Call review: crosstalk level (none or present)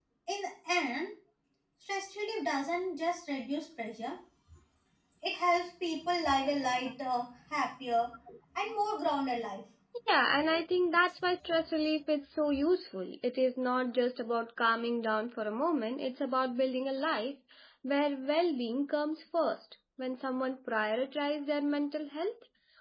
none